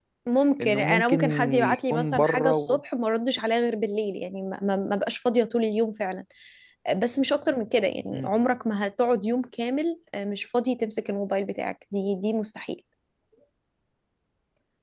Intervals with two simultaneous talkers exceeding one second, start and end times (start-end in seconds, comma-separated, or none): 0.6-2.8